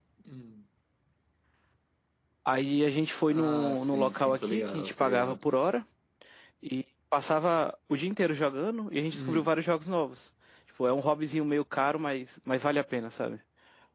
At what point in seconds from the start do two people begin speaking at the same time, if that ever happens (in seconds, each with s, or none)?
3.3 s